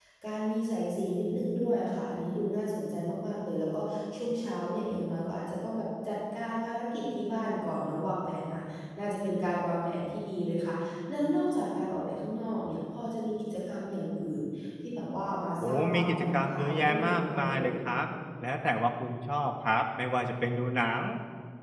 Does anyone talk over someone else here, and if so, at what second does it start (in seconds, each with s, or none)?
15.6 s